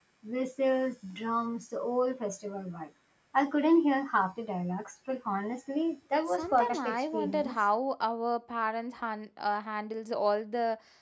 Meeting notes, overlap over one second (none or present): present